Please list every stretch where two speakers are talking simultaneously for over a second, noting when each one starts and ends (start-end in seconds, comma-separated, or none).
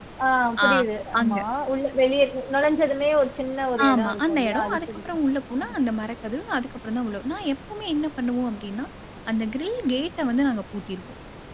3.9-5.2